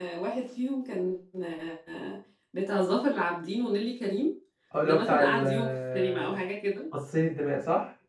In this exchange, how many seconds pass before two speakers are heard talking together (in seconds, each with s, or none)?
4.8 s